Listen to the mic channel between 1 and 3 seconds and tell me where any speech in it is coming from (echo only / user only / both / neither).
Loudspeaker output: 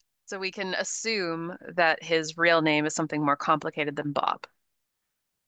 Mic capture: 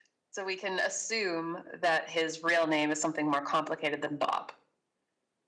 echo only